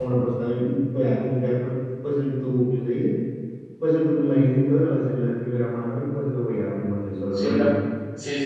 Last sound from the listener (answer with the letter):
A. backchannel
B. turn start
B